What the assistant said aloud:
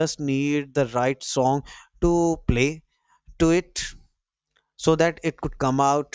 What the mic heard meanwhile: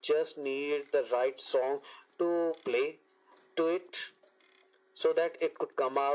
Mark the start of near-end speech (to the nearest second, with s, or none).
none